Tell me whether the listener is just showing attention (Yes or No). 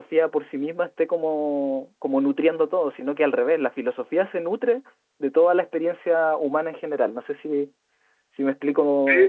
No